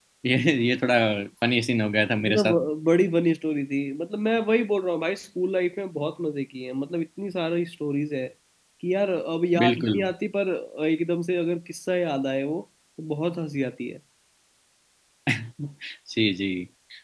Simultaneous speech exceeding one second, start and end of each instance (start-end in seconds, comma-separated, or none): none